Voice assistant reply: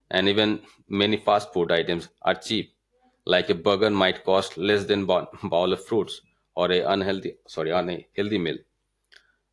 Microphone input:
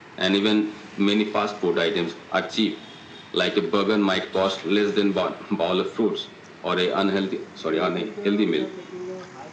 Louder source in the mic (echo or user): echo